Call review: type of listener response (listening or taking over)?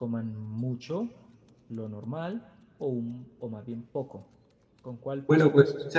taking over